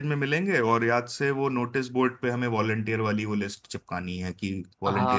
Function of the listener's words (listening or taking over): taking over